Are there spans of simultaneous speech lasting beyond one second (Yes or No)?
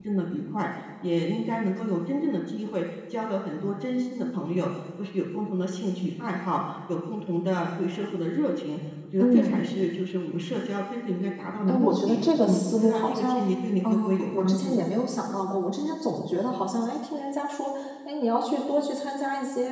Yes